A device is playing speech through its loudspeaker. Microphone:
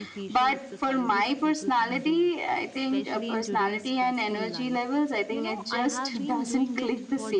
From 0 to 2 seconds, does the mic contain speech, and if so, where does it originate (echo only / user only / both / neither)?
both